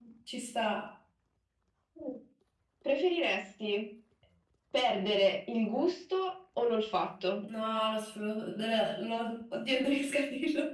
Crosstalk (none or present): none